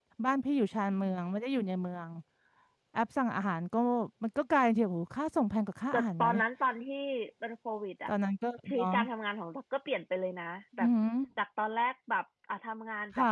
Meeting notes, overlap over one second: none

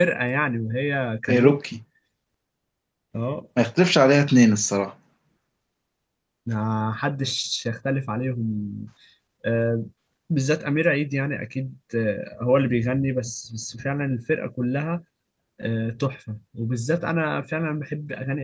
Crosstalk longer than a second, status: none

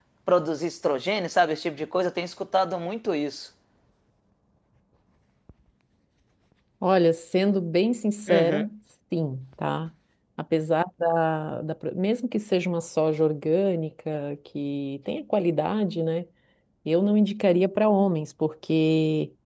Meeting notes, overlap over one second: none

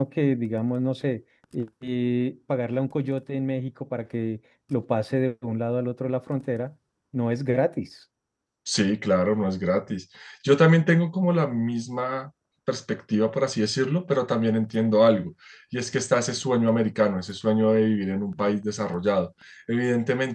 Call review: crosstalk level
none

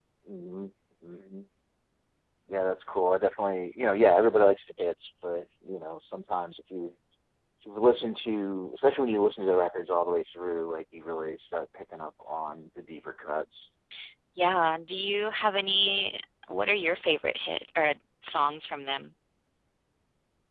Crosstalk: none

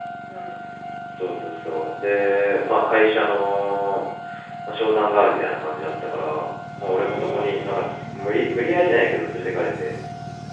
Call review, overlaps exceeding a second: present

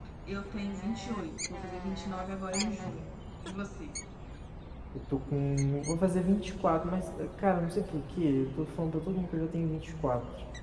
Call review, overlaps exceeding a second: none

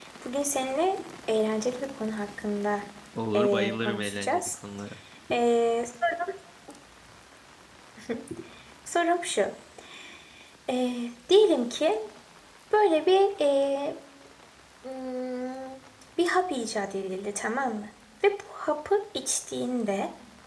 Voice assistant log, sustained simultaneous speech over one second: present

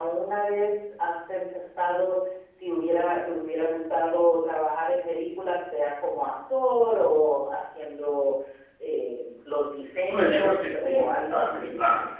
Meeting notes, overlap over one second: present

